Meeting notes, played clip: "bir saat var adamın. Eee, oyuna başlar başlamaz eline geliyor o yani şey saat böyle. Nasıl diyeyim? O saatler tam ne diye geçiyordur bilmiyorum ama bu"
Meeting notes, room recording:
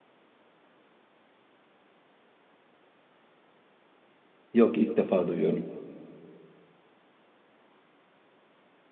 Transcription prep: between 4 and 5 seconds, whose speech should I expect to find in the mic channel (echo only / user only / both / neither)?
user only